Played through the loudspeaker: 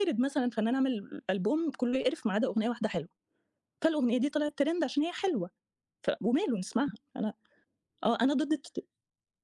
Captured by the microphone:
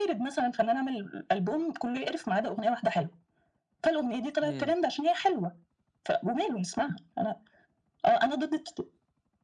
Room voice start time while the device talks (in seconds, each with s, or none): 4.4 s